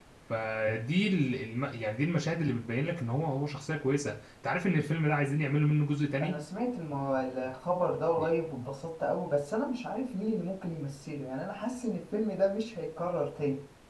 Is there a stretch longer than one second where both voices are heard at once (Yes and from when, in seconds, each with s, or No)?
No